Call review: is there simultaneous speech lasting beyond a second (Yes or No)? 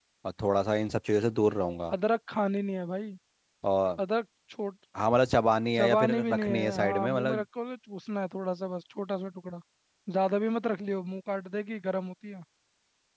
Yes